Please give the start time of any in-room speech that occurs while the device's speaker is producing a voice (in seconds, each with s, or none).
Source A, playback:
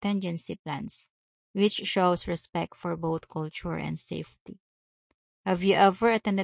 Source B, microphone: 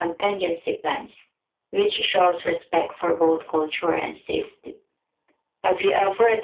none